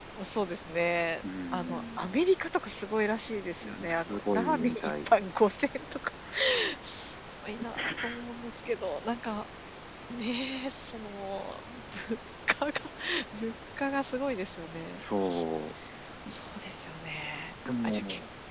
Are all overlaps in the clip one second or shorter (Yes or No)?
No